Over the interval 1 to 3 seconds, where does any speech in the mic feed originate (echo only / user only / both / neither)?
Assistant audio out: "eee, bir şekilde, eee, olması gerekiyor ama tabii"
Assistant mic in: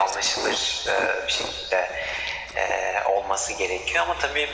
echo only